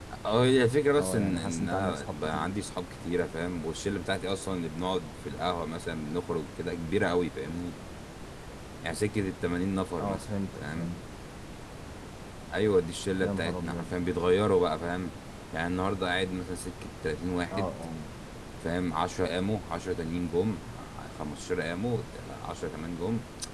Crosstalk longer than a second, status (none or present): present